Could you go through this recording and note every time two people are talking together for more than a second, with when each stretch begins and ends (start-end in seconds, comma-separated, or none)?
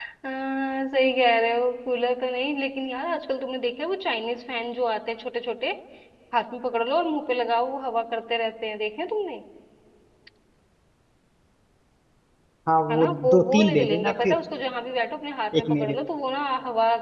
12.9-14.4